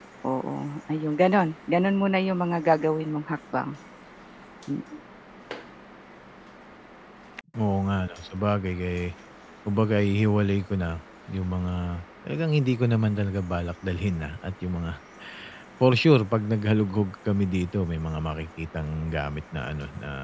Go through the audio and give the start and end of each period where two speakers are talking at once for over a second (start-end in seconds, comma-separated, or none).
none